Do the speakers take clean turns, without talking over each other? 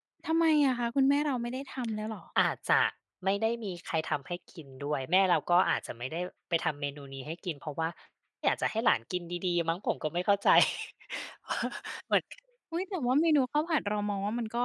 Yes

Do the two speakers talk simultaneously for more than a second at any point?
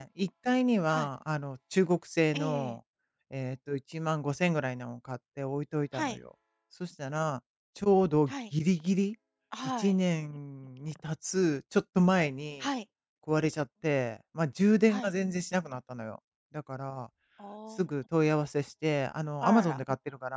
No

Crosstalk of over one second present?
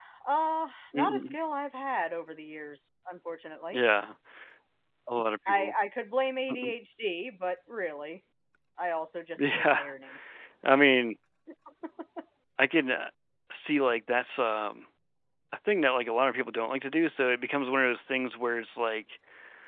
No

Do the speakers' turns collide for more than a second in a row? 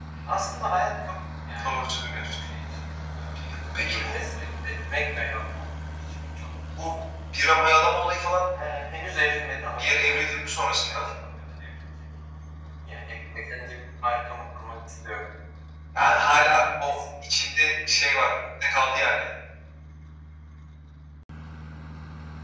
Yes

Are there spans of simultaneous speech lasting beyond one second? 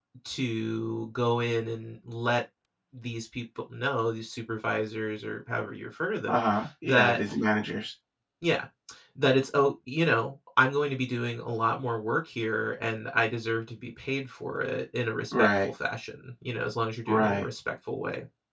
No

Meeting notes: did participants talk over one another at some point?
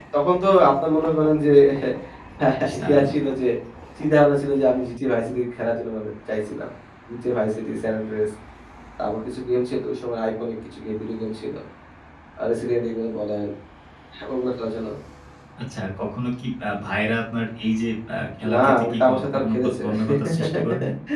Yes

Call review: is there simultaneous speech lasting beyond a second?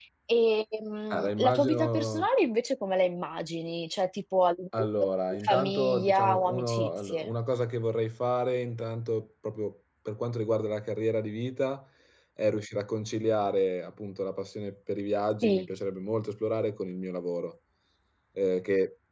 Yes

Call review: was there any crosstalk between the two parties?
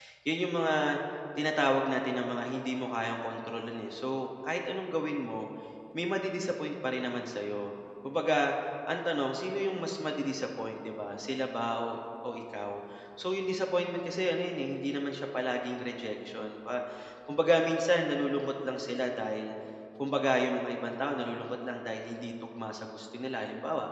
No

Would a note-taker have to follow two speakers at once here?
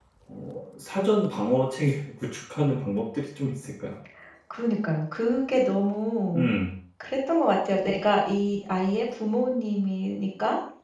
No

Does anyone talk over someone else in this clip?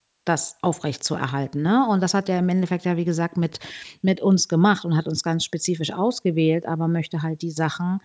No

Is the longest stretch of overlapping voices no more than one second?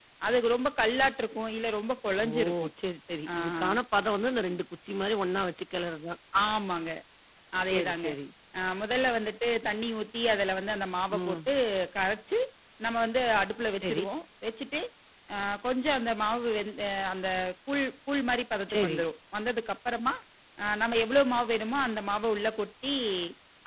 Yes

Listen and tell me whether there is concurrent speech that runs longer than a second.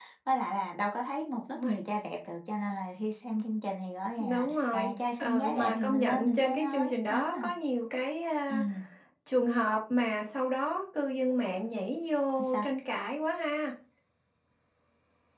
Yes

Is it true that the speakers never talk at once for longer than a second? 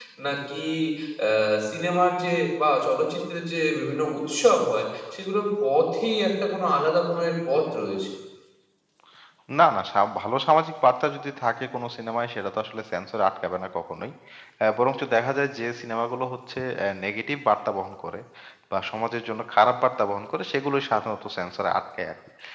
Yes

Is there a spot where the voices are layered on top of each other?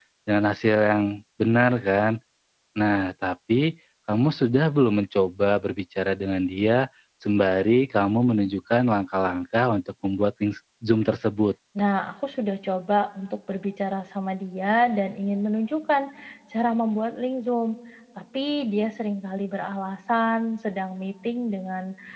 No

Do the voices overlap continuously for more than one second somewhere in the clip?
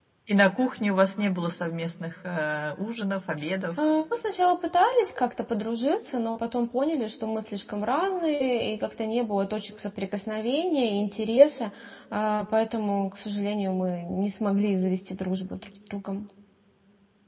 No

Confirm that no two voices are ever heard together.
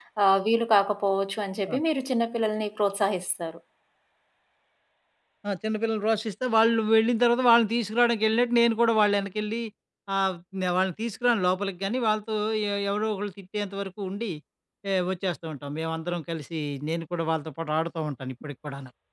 Yes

